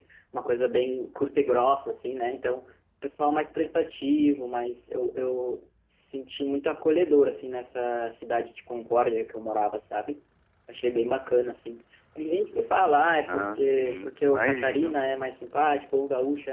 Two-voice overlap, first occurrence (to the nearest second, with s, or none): 13 s